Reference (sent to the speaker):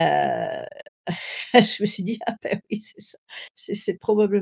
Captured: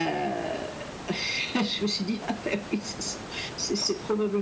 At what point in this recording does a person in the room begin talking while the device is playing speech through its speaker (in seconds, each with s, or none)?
none